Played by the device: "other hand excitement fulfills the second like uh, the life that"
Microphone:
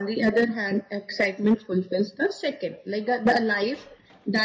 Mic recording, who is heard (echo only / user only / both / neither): echo only